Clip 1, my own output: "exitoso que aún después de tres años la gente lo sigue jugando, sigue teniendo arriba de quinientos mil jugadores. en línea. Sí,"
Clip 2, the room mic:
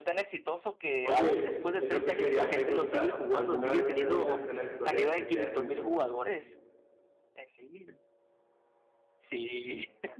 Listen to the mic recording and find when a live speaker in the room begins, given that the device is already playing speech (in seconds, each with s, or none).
1.0 s